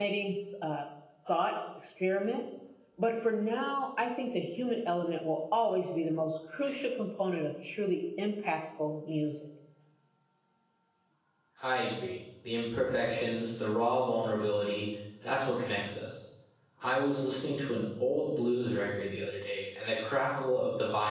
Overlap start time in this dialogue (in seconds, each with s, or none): none